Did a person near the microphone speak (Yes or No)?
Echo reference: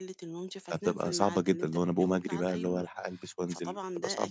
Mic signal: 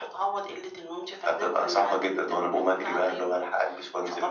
No